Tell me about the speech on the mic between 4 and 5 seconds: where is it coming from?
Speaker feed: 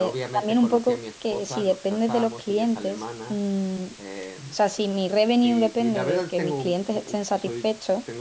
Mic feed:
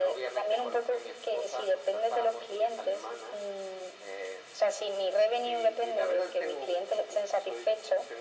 echo only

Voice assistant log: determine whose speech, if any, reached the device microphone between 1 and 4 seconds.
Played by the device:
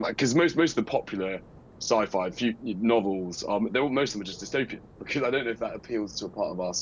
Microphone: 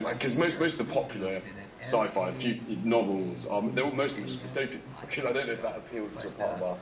both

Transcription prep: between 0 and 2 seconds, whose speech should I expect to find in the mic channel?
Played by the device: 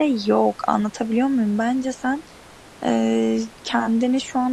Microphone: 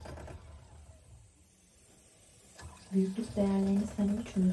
neither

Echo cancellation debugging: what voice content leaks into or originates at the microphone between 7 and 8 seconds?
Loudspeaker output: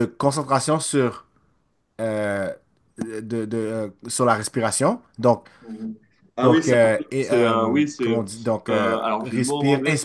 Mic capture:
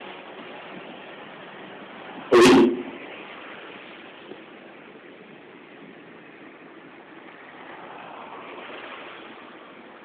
neither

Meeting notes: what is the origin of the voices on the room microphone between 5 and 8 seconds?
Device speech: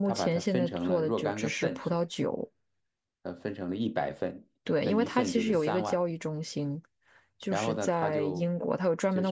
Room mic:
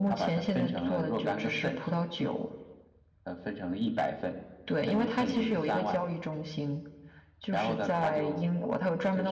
echo only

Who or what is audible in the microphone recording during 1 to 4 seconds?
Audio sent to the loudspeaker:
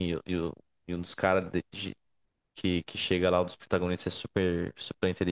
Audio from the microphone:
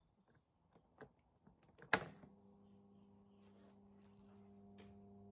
neither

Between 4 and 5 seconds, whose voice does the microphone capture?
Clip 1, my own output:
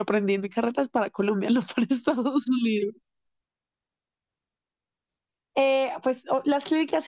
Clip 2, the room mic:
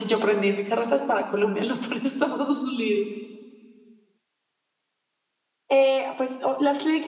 neither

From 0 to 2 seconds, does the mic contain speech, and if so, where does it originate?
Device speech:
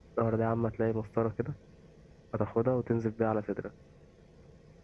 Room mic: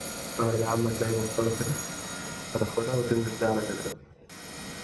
echo only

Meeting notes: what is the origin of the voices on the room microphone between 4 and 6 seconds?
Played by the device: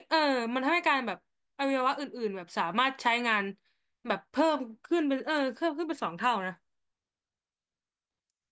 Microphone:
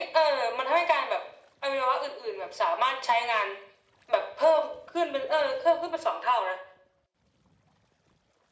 echo only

